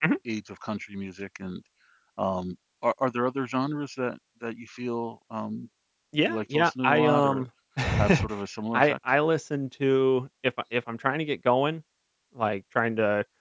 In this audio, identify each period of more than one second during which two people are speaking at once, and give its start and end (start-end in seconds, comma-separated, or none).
6.3-7.5